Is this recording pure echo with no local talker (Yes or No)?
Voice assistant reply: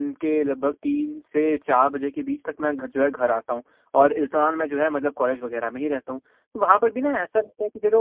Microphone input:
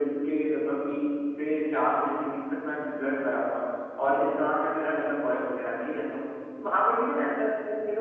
Yes